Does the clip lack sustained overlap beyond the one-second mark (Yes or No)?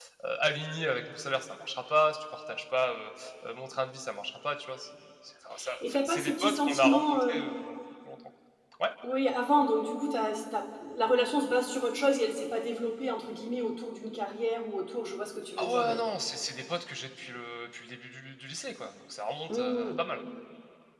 No